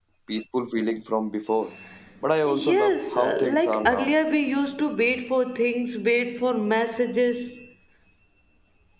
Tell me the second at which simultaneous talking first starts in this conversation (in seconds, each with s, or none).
2.5 s